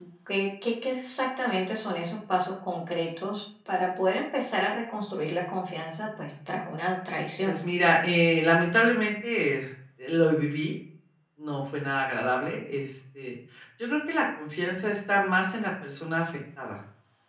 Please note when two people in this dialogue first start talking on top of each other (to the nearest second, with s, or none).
none